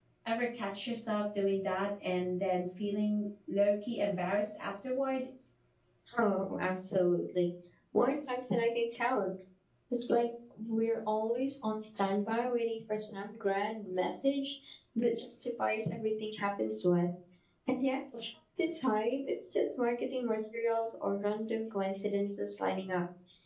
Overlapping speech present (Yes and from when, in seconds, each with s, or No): No